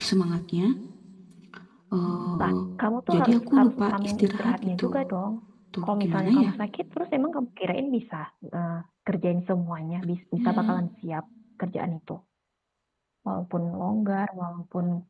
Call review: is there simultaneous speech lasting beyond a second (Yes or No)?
Yes